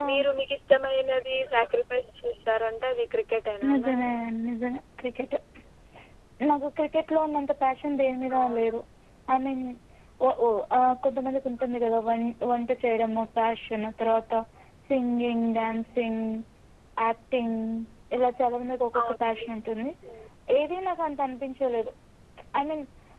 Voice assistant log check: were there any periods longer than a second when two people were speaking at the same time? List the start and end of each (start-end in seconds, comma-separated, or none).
none